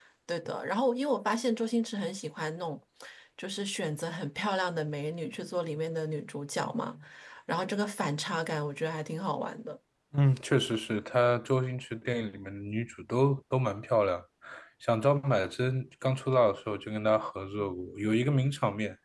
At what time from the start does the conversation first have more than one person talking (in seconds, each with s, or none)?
none